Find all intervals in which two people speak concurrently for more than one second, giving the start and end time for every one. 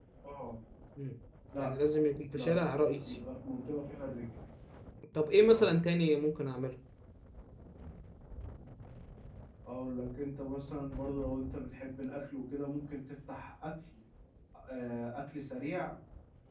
none

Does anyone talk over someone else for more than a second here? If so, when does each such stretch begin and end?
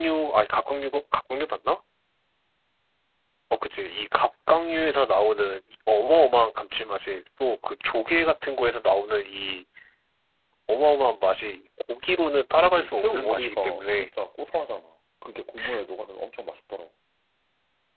12.6-14.1

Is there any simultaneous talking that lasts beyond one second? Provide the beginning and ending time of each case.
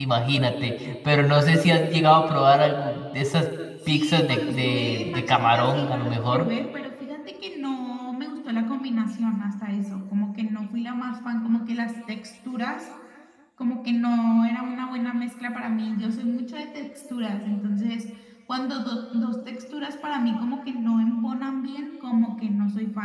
3.9-6.5

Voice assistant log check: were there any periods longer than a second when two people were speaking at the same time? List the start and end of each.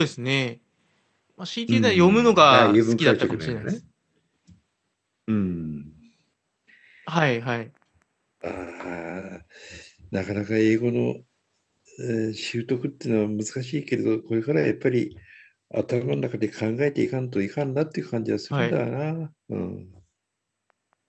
1.7-3.7

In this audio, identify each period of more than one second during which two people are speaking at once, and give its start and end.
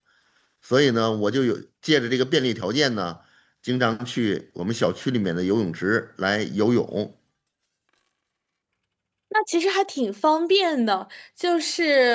none

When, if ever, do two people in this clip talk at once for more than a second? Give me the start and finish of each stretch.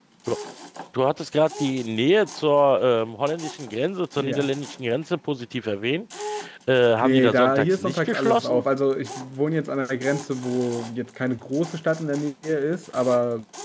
7.0-8.6

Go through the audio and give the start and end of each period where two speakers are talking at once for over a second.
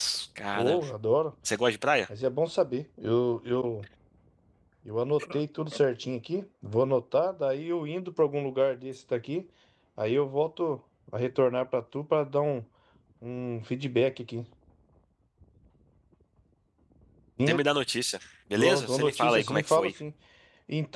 18.5-19.9

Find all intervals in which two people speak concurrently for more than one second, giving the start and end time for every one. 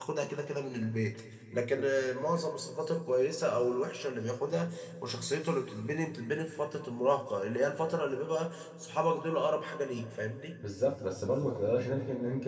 none

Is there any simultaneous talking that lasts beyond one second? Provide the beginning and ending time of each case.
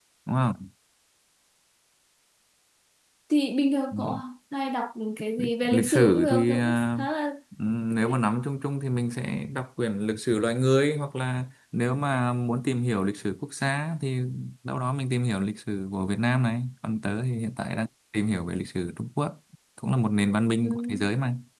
5.4-6.8

